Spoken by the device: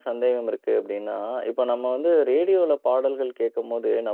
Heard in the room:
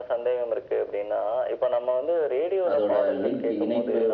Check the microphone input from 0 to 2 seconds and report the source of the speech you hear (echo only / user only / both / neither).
echo only